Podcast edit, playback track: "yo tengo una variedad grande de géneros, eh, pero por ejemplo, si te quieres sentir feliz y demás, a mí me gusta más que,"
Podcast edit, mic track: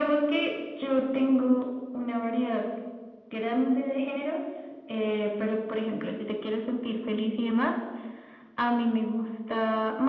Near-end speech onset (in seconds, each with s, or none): none